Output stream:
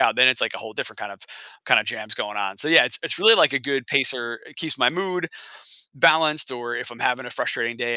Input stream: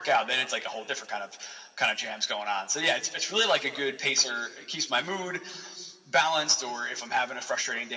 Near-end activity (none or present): none